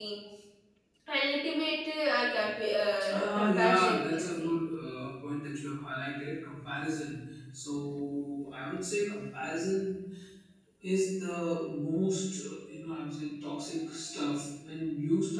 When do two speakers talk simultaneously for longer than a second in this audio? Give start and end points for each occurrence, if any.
3.1-4.5

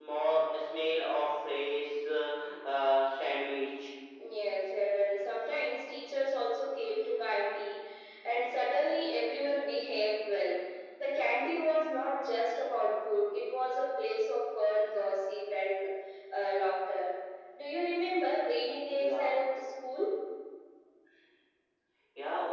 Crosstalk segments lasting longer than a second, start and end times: none

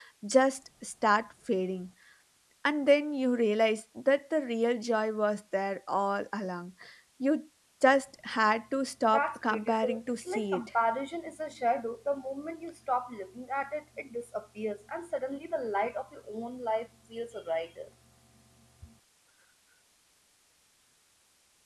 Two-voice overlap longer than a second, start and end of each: 9.1-10.6

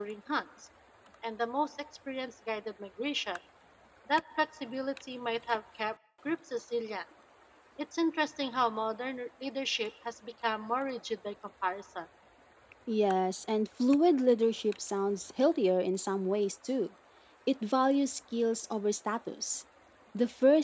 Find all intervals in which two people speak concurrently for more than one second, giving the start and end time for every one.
none

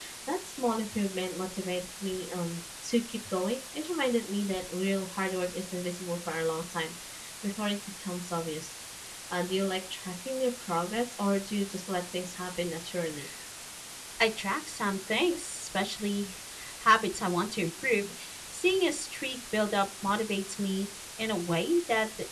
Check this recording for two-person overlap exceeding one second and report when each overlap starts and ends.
none

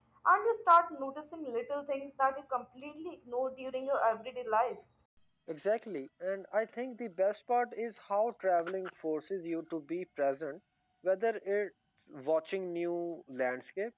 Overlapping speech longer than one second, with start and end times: none

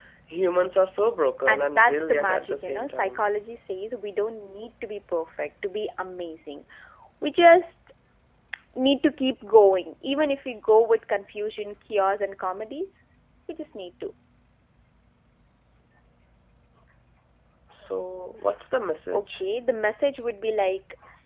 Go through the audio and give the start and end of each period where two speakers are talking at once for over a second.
1.5-3.2

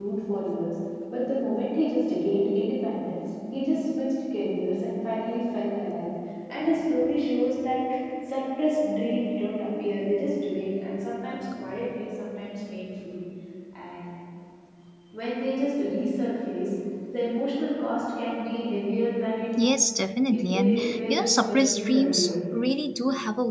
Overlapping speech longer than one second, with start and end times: 20.3-22.4

